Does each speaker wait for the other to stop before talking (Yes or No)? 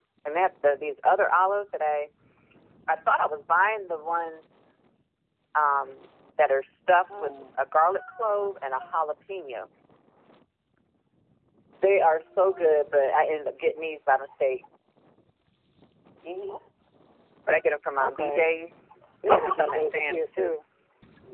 No